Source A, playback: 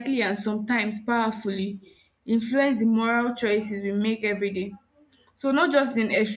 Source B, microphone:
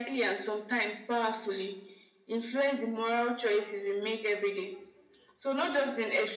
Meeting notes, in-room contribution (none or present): none